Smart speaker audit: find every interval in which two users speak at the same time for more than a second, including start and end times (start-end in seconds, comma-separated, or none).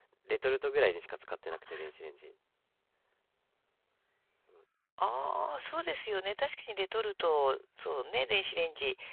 none